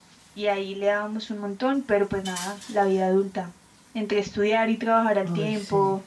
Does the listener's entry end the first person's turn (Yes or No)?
No